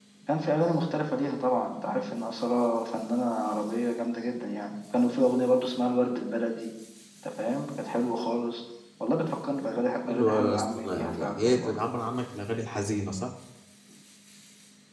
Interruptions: present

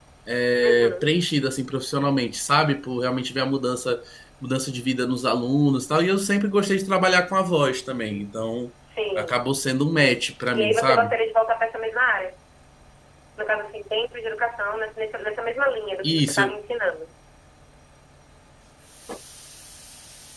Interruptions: present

